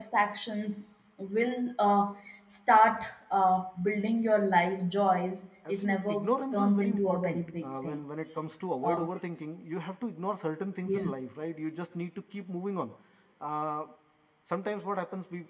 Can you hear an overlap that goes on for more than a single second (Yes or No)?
Yes